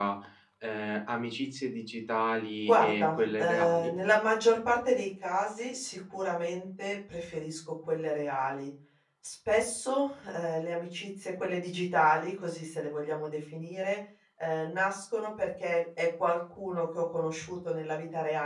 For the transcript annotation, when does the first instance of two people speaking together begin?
2.7 s

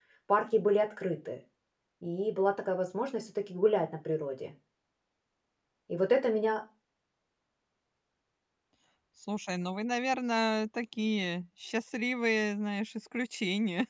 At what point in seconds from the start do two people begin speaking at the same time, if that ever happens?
none

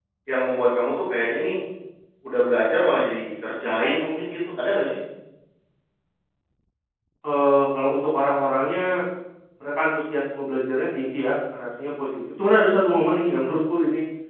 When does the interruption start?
none

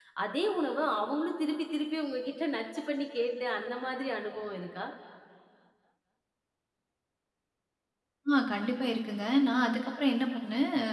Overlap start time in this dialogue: none

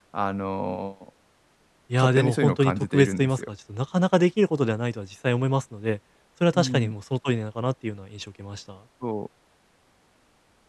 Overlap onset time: 2.0 s

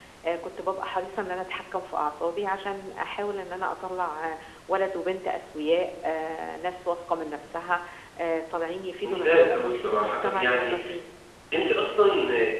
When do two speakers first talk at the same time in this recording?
9.1 s

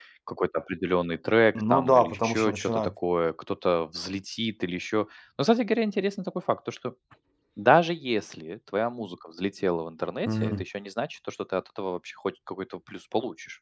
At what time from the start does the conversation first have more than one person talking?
1.6 s

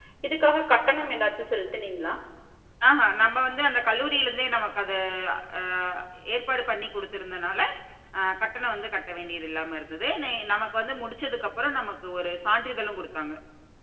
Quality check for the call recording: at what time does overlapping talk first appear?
none

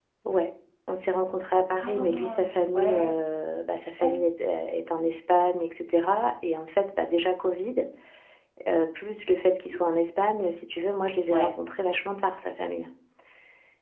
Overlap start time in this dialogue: 1.8 s

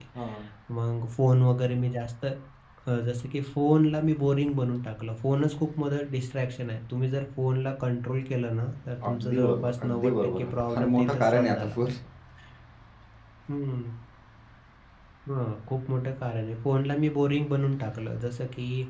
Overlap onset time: 9.0 s

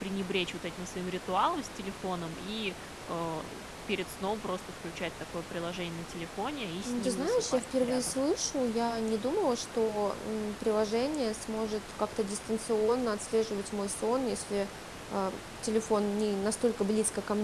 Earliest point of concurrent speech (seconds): 6.8 s

